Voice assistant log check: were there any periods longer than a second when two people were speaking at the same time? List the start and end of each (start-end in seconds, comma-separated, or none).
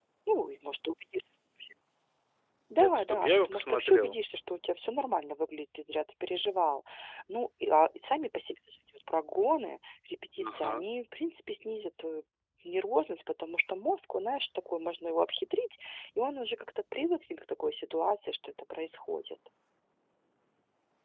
2.8-4.2